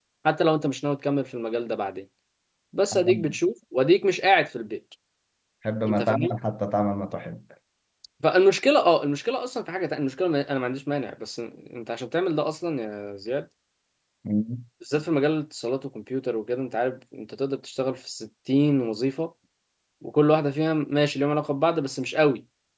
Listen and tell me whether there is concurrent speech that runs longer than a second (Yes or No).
No